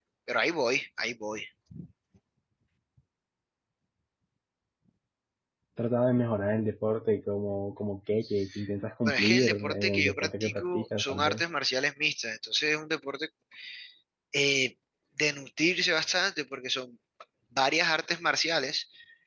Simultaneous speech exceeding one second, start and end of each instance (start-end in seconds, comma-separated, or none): 9.0-11.4